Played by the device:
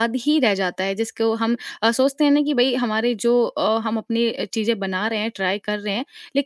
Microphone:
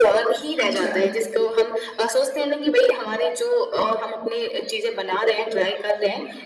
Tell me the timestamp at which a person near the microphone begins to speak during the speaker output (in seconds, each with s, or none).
0.6 s